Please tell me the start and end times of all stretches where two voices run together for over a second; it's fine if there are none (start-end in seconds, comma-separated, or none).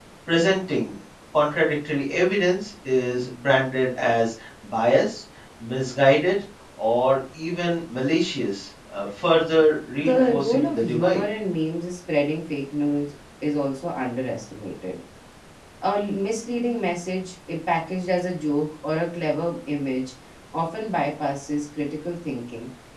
10.0-11.2